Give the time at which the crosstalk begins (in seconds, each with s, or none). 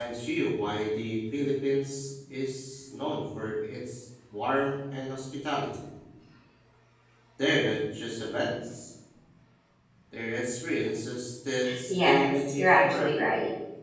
11.6 s